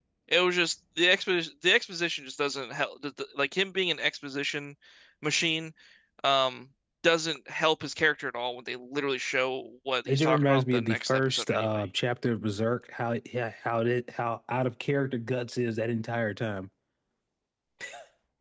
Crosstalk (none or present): present